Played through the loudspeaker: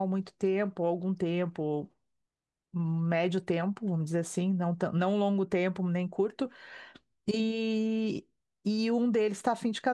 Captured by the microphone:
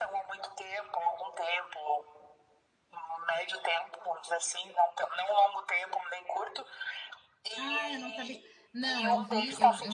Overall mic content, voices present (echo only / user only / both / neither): both